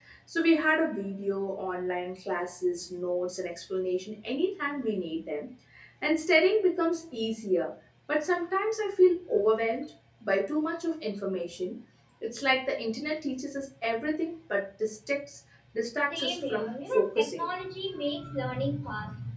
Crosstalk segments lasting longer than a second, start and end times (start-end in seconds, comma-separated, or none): 16.1-17.5